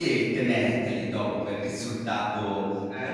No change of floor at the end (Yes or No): Yes